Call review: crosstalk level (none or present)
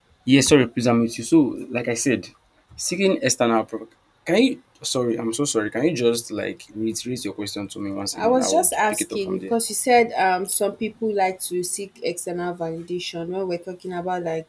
present